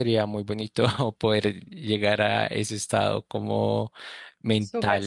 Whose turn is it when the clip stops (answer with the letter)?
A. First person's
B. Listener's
B